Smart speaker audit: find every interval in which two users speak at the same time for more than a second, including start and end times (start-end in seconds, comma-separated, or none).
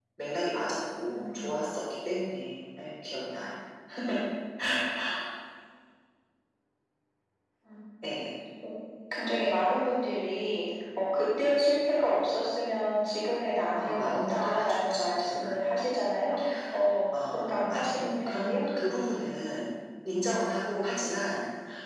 13.8-15.6, 17.3-18.6